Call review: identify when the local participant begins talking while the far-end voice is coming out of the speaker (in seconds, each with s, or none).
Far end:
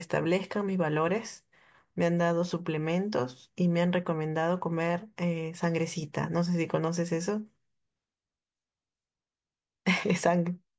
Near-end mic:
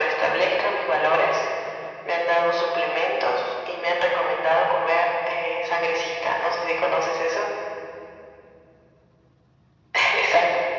none